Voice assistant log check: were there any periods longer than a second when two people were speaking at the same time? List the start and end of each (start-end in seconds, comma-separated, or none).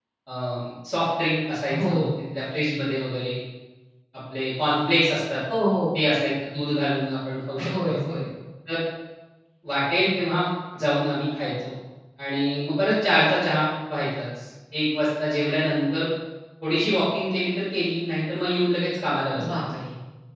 none